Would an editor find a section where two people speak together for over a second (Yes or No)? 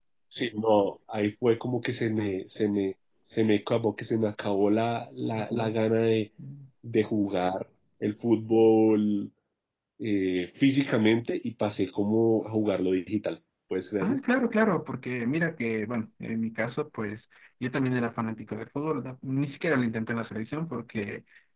No